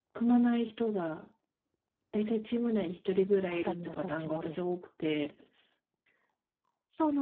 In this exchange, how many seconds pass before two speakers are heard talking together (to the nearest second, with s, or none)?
3 s